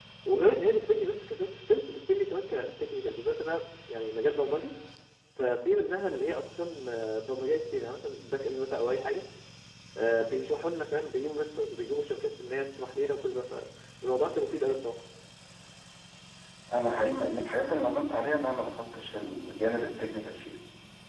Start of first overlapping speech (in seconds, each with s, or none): none